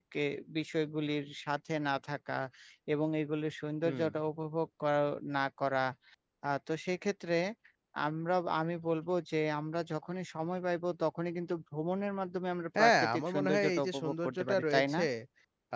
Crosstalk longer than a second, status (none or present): present